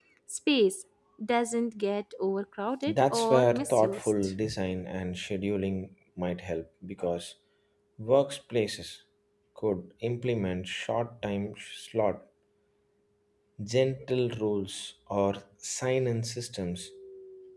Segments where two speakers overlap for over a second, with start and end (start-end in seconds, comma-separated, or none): 2.9-4.3